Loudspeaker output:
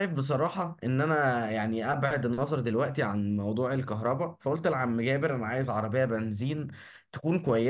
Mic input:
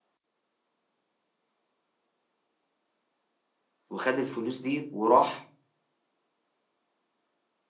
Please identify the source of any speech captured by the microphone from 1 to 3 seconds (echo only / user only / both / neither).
neither